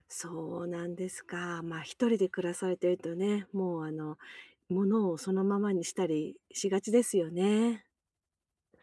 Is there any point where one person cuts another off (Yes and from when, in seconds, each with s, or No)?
No